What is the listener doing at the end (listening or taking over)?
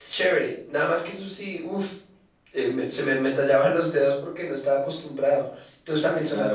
taking over